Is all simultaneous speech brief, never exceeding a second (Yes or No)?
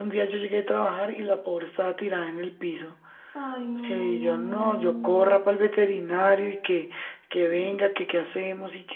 No